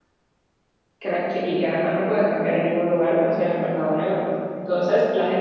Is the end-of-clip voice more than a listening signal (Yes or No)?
No